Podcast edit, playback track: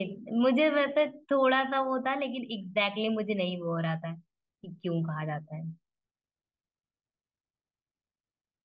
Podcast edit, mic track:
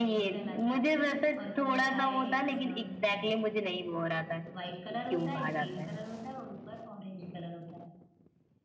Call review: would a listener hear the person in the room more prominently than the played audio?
No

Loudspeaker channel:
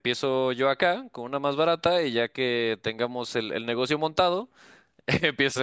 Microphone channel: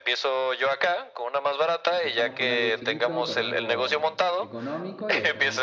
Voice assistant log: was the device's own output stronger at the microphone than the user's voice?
Yes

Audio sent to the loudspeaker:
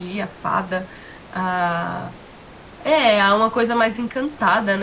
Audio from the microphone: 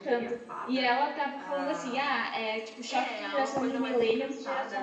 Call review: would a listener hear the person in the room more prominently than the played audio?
Yes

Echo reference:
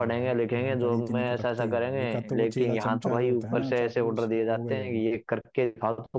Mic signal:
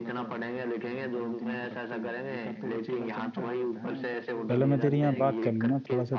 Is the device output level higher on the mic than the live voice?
No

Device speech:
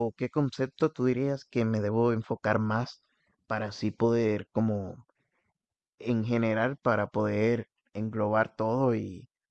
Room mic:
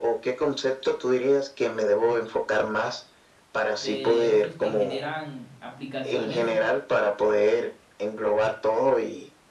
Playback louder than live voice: Yes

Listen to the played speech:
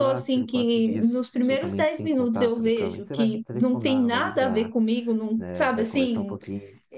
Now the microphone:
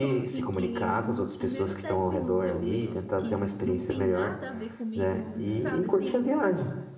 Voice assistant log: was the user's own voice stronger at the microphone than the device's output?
Yes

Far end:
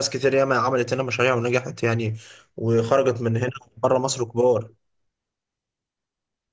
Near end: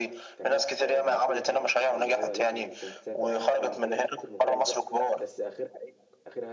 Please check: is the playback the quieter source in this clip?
No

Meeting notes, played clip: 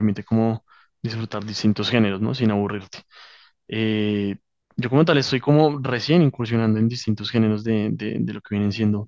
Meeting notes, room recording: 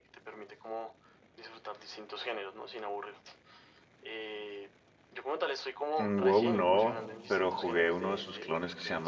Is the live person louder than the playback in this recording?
Yes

